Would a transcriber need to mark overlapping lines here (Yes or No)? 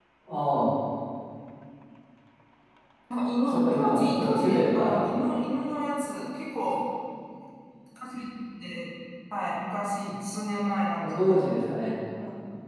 Yes